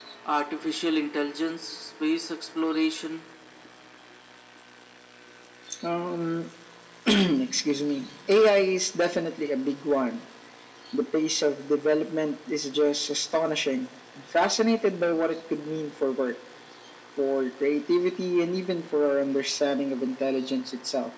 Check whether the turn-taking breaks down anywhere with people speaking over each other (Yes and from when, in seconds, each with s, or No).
No